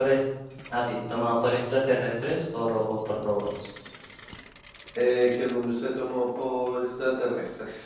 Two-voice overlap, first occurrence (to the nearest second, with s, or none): none